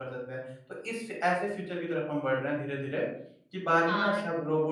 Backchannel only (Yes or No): No